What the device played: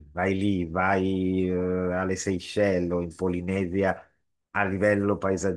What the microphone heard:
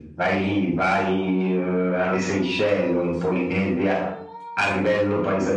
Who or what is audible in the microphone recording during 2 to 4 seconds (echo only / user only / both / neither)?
echo only